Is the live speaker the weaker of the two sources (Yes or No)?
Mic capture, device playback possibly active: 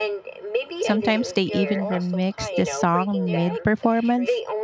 No